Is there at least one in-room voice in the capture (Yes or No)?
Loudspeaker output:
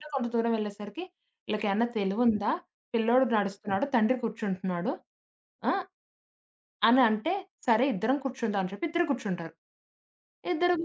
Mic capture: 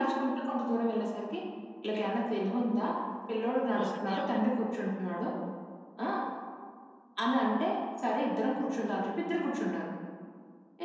Yes